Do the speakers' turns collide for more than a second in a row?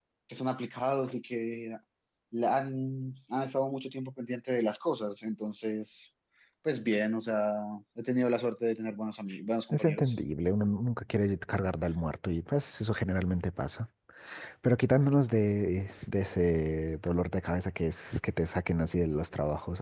No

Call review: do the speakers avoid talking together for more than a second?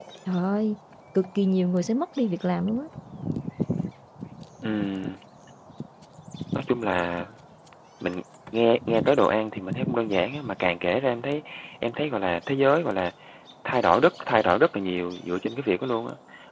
Yes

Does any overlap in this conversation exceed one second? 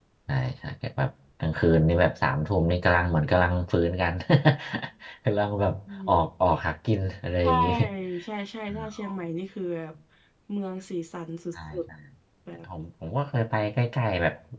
No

